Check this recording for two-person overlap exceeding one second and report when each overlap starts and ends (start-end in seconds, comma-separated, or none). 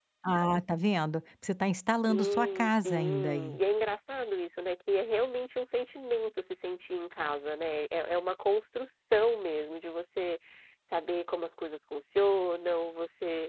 2.1-3.6